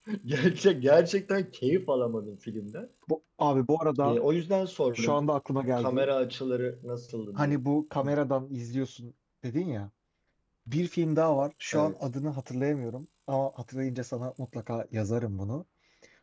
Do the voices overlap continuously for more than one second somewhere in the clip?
No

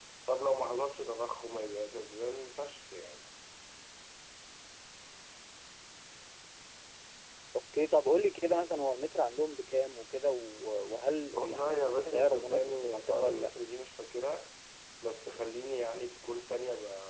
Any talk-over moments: Yes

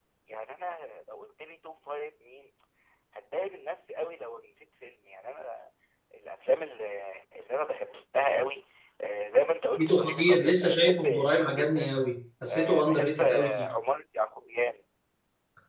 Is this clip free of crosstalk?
No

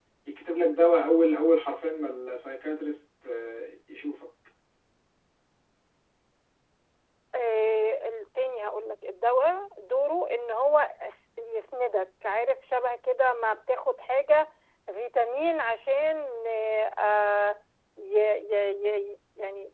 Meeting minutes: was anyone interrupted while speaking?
No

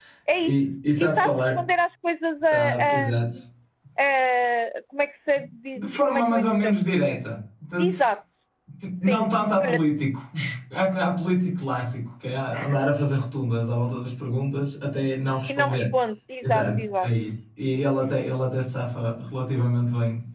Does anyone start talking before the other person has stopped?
Yes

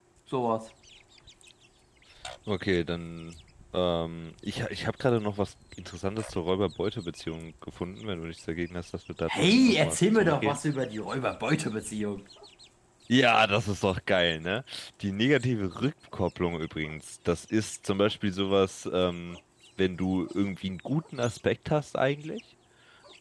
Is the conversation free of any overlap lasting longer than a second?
No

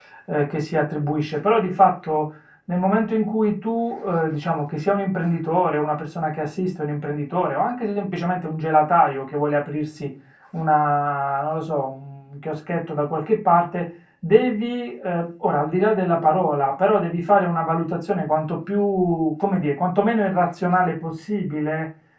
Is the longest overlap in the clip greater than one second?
No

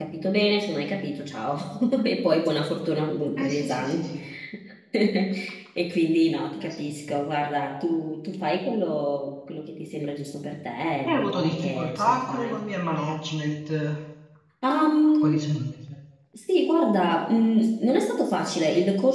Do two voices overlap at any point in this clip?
Yes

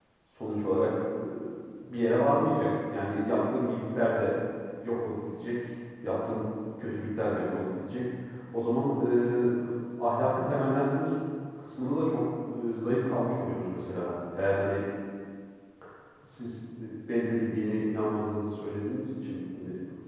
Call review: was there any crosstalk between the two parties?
No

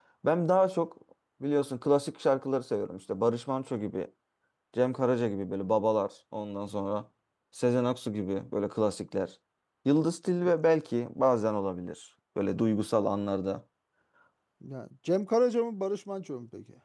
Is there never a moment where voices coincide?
Yes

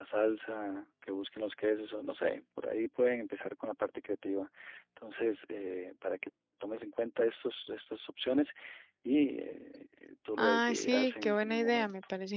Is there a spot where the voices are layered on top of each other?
Yes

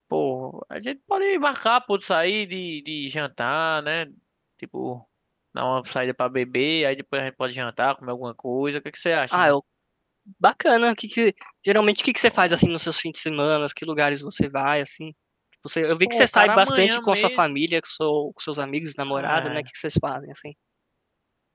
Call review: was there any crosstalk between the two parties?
Yes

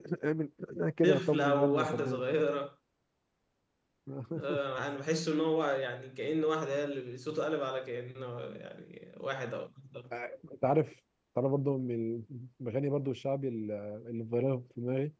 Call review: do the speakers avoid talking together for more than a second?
No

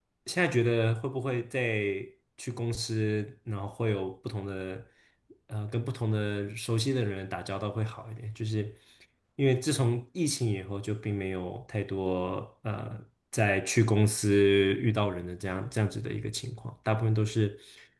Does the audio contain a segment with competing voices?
No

